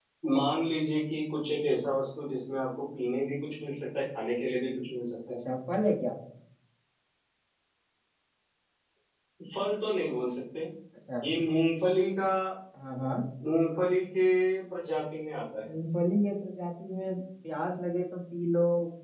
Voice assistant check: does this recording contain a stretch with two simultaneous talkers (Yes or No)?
No